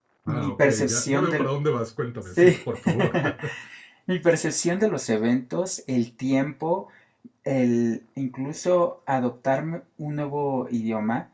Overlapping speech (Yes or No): Yes